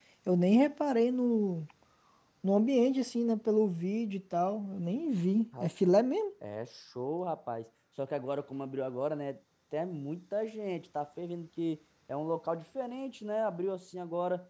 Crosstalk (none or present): none